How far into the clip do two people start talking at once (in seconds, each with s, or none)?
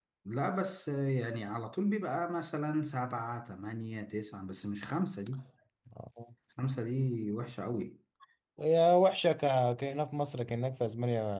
none